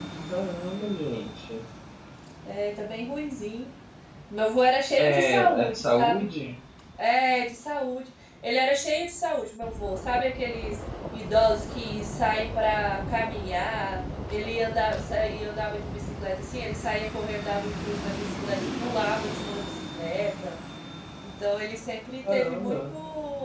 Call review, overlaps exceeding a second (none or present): present